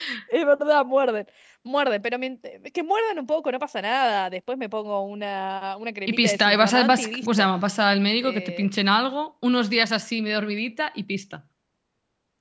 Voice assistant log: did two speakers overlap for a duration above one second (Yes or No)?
Yes